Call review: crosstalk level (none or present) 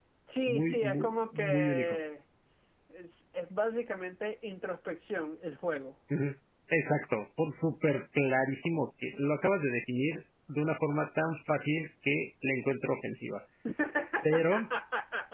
present